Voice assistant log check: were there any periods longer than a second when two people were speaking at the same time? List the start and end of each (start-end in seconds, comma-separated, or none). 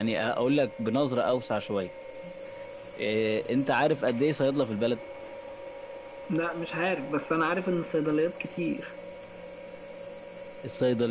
none